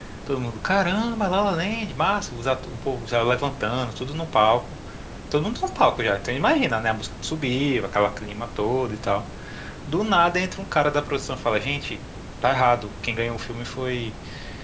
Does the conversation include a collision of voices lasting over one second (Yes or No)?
No